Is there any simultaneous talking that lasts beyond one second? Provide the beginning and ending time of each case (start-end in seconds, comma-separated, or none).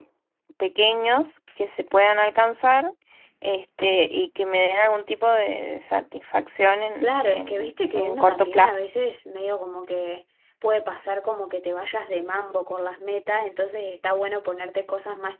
7.0-8.8